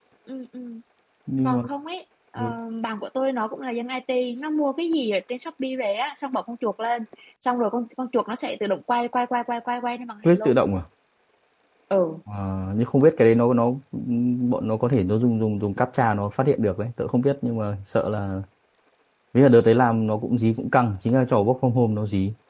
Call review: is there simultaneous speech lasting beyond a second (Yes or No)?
No